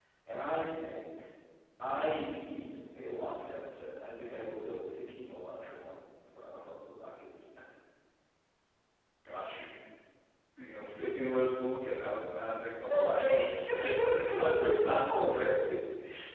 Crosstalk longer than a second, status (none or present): present